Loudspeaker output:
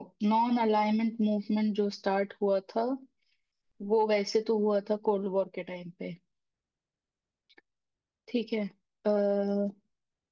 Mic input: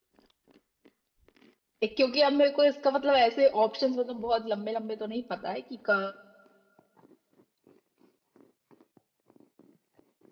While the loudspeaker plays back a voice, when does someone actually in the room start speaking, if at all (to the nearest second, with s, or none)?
2 s